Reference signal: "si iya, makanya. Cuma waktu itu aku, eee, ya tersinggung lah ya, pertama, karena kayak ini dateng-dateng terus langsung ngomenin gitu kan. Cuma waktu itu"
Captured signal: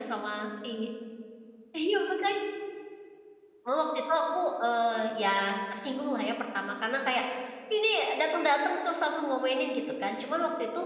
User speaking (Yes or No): No